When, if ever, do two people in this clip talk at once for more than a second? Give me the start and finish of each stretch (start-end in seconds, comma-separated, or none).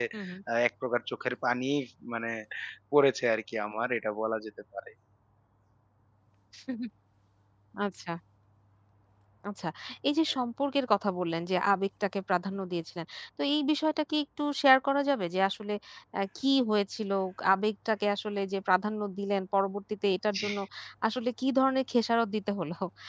none